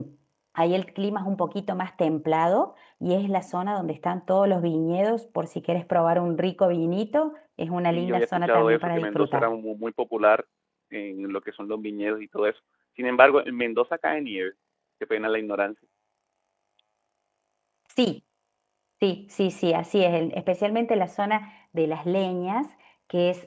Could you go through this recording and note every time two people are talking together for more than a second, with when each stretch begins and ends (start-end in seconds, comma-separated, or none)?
7.9-9.5